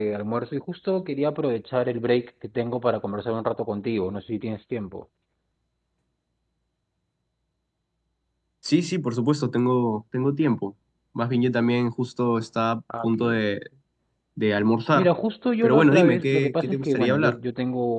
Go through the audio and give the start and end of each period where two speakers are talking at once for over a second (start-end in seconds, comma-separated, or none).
15.6-17.4